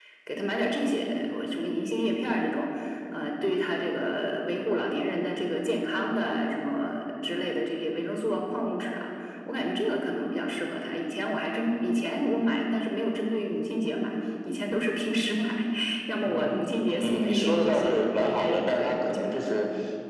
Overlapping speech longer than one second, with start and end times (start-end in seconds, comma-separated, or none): 16.2-19.4